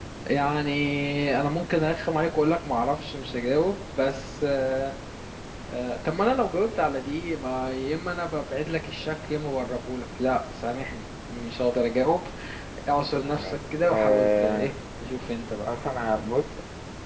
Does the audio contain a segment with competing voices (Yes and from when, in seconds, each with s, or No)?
Yes, from 13.3 s